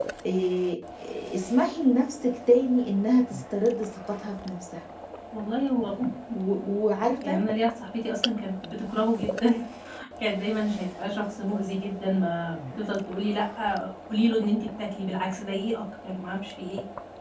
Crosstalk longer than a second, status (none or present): none